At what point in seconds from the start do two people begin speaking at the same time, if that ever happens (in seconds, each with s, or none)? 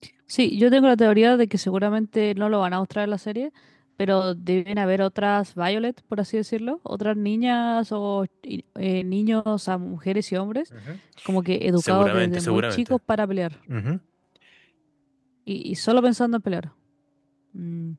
11.8 s